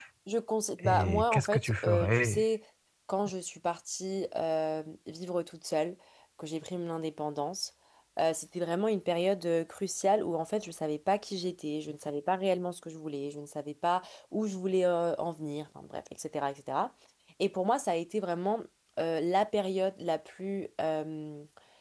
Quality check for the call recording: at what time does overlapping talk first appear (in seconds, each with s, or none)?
0.8 s